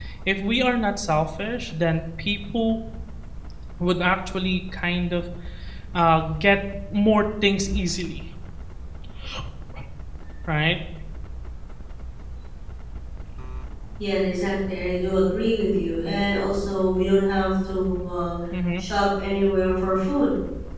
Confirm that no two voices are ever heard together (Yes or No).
Yes